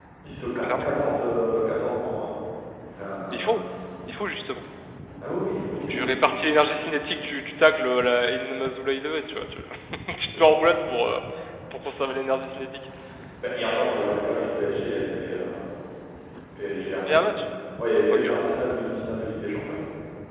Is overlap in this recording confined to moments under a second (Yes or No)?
Yes